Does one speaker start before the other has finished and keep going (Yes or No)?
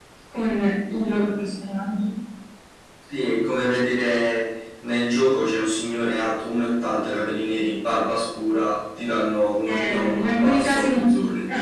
Yes